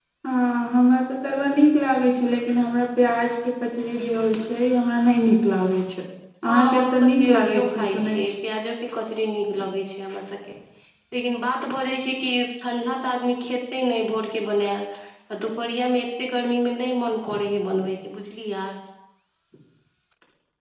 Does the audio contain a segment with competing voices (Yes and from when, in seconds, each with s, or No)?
Yes, from 6.5 s